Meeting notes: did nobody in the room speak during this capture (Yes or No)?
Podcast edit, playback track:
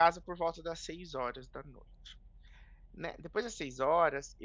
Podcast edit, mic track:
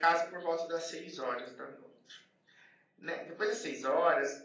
Yes